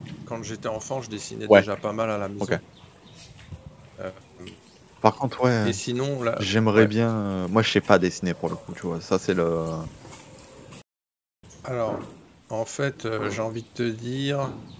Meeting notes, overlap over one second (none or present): none